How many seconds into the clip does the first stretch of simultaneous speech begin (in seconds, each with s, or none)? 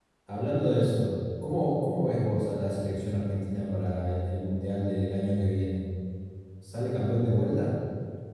none